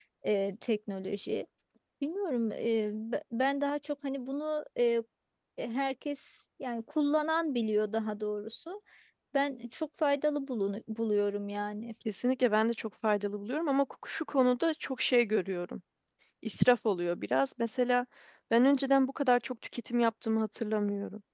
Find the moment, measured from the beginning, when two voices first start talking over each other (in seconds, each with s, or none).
none